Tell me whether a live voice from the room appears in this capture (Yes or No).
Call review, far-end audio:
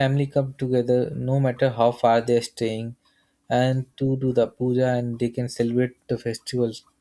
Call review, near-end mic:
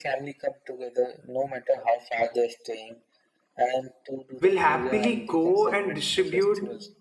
Yes